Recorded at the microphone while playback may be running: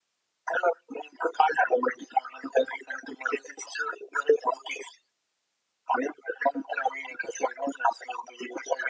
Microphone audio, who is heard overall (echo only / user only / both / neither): echo only